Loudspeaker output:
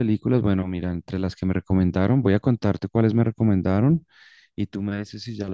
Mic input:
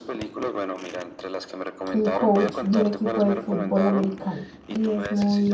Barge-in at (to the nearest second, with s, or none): 2 s